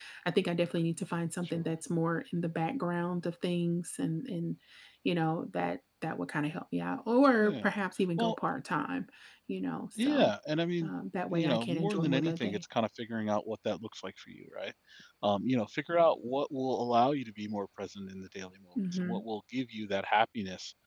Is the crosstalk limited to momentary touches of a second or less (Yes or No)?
No